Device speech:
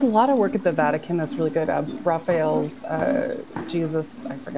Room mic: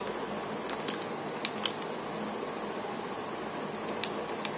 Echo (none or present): none